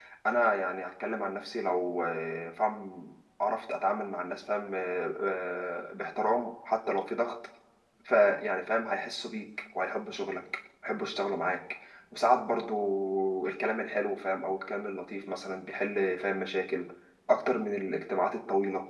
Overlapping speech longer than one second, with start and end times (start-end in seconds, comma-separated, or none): none